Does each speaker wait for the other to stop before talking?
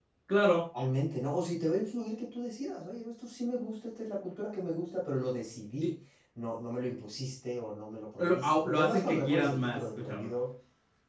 No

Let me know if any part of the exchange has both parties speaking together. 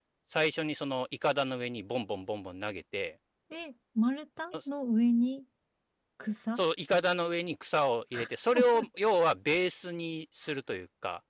No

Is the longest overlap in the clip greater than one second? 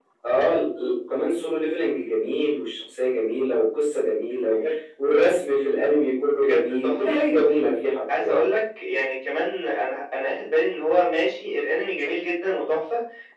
Yes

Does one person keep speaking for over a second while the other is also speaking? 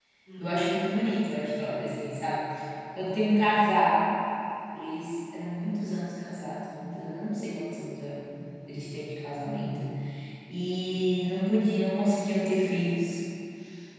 No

